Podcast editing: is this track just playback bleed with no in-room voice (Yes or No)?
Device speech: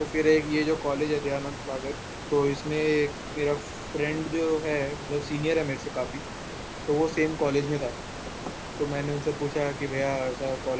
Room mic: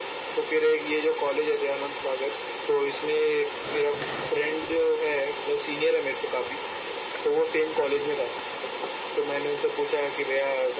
Yes